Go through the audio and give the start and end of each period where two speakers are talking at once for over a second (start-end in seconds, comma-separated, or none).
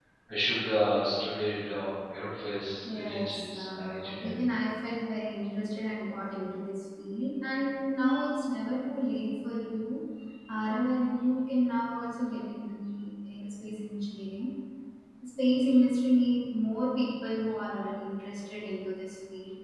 2.9-4.5